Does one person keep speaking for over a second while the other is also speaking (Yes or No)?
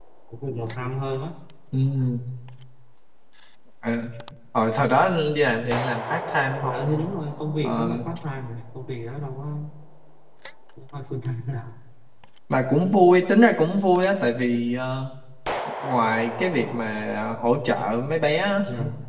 No